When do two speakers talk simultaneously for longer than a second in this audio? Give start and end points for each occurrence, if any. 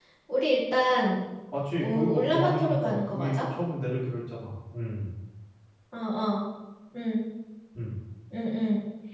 1.8-3.4

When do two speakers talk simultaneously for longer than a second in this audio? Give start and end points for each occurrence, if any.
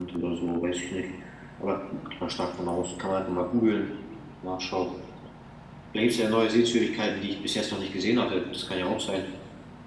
none

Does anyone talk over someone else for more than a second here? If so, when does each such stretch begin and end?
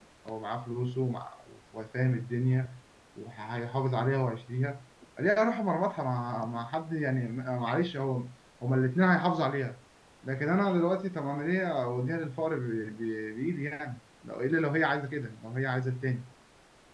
none

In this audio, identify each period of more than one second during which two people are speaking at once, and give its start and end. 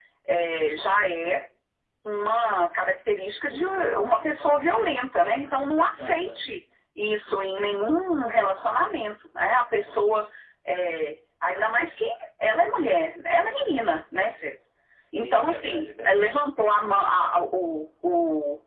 15.1-16.4

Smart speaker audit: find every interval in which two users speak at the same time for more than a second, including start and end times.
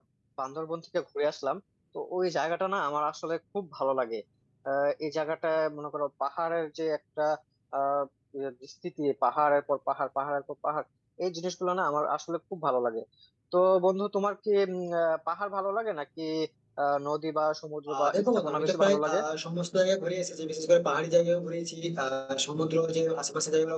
18.0-19.2

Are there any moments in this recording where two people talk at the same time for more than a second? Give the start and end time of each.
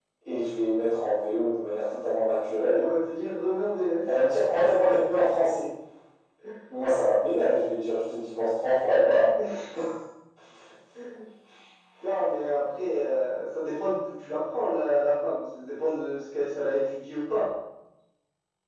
none

